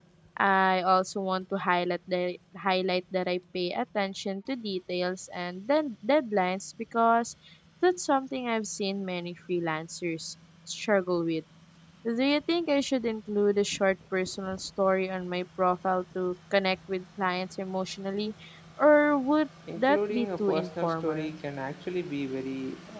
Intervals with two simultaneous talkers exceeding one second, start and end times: 19.8-21.3

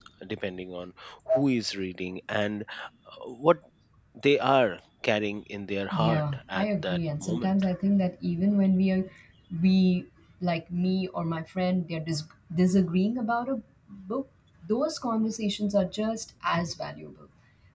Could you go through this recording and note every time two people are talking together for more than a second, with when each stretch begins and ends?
5.9-7.5

